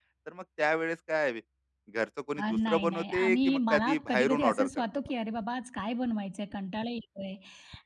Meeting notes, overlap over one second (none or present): present